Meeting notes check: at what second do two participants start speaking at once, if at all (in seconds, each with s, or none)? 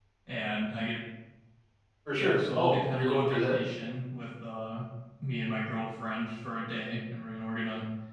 2.1 s